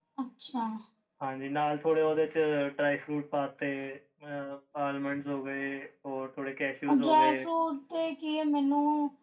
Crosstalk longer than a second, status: none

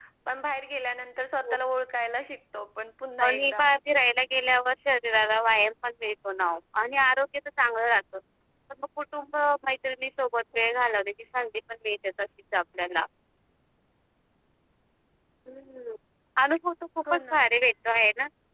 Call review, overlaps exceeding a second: none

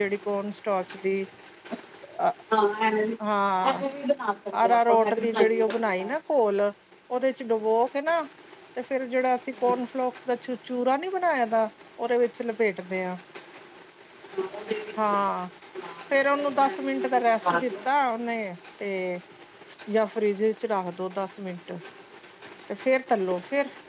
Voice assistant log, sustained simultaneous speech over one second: present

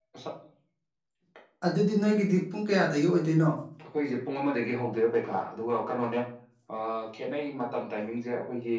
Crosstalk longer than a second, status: none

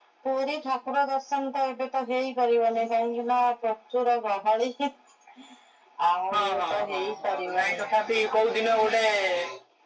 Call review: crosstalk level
present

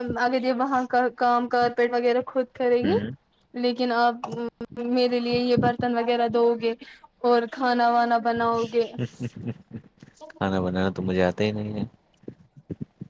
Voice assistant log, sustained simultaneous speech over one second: none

